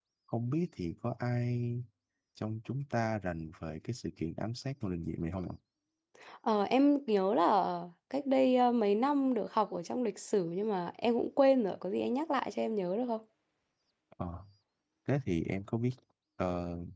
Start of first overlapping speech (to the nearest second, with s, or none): none